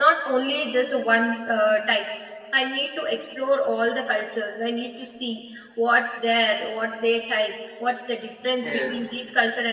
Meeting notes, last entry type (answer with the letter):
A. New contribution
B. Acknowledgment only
B